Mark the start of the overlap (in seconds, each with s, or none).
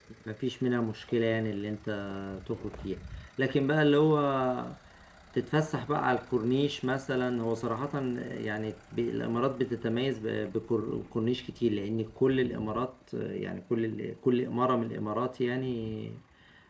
none